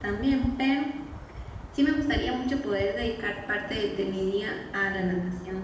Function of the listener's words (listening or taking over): listening